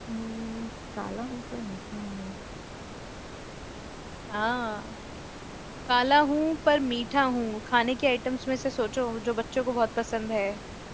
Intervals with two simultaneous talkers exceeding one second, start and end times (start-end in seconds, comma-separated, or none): none